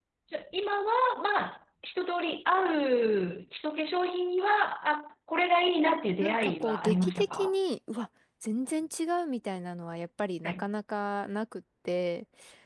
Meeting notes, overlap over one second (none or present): present